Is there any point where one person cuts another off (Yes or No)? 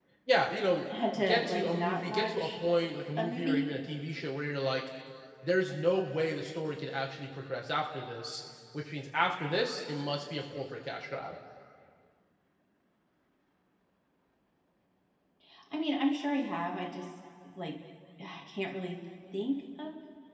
Yes